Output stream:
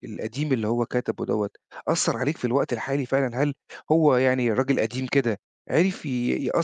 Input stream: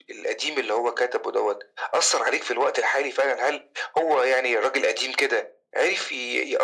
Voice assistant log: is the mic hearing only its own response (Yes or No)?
Yes